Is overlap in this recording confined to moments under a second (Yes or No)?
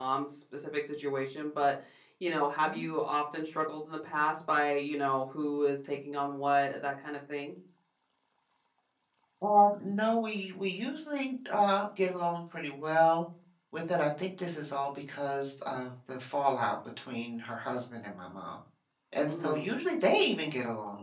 Yes